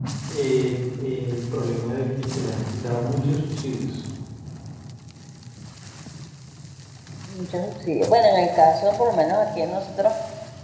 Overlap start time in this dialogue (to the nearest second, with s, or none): none